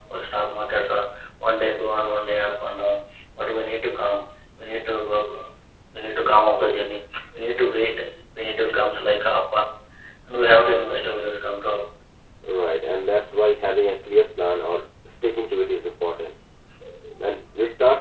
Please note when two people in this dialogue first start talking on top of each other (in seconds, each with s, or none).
none